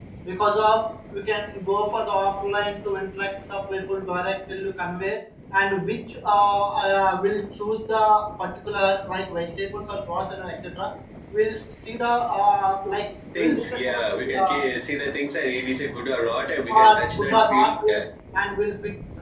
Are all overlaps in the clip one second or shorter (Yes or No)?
No